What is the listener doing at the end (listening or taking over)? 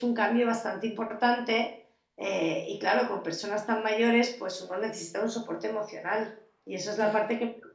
listening